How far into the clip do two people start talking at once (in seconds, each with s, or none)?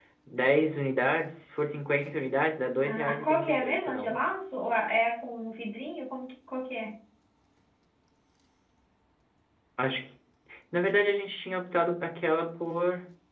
2.8 s